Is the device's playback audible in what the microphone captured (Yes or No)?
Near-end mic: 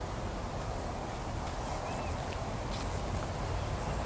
No